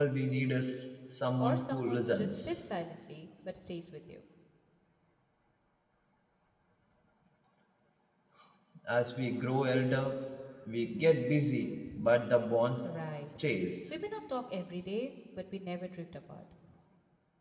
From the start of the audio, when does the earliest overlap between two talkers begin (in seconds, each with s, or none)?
1.4 s